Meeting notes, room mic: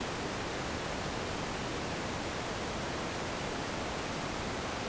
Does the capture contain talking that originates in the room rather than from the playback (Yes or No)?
No